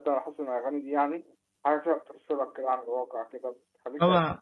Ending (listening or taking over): taking over